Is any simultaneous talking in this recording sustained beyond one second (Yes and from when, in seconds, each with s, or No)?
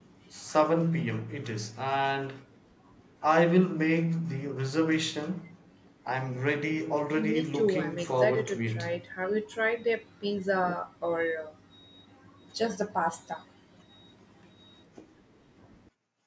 Yes, from 7.2 s